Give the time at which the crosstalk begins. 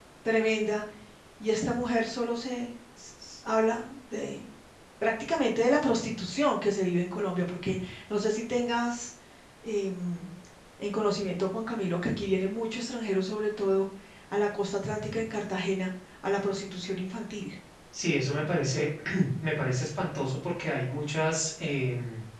none

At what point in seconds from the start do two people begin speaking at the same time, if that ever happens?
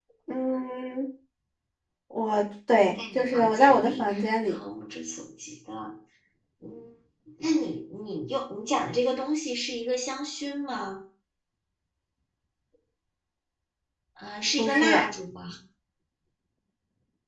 3.0 s

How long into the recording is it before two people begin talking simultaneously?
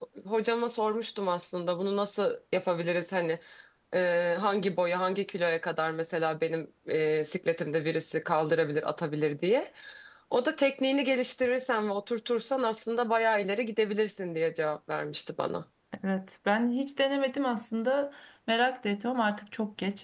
none

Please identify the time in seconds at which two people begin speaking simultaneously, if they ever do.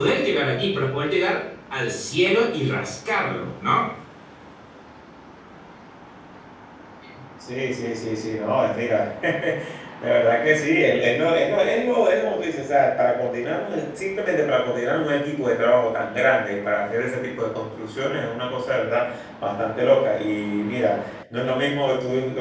none

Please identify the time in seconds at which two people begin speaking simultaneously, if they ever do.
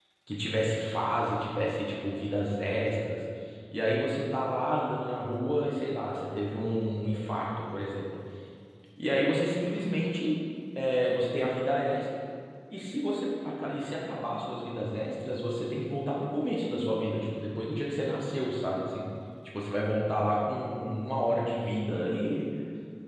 none

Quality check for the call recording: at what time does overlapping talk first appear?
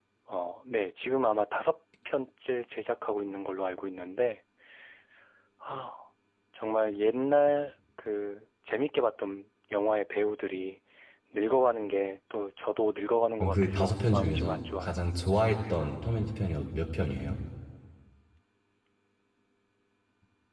13.4 s

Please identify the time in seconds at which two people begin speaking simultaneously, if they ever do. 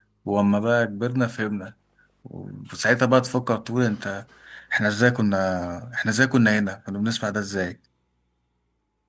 none

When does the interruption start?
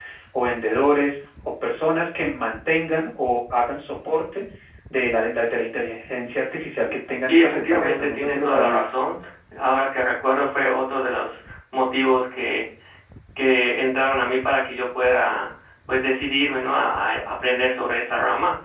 7.2 s

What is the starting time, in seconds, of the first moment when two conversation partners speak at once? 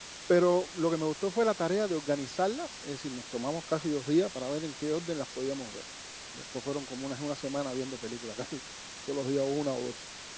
none

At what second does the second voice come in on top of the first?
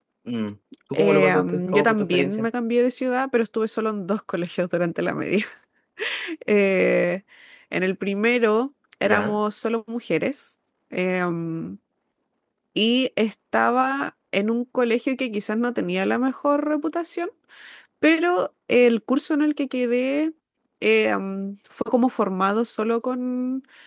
0.9 s

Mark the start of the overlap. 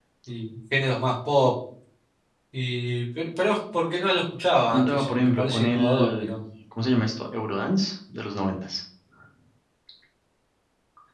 4.7 s

